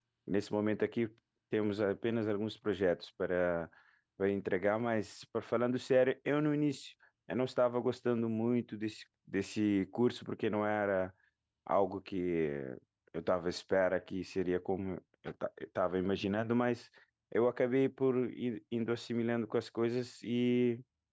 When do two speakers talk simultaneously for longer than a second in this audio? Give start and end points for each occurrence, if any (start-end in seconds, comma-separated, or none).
none